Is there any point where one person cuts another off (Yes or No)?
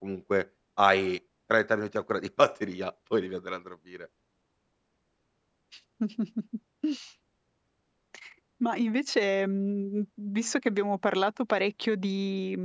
No